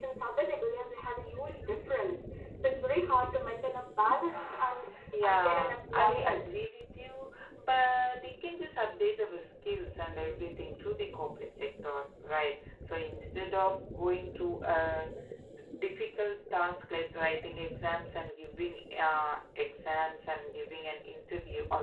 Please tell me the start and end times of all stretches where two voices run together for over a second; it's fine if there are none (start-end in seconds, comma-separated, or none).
5.2-6.5